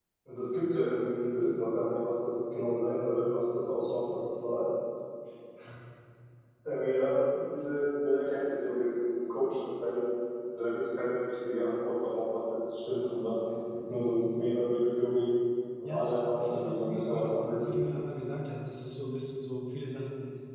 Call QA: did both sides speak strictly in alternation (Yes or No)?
No